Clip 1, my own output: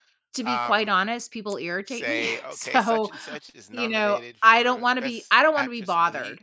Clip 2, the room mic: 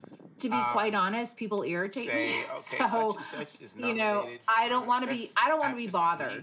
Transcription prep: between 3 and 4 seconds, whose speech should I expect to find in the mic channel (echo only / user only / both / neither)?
echo only